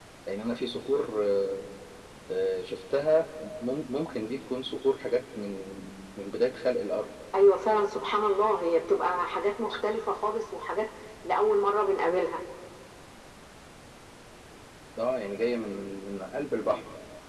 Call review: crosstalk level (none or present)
none